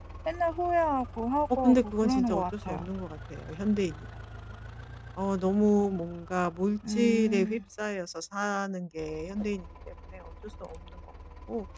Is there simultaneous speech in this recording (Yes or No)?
Yes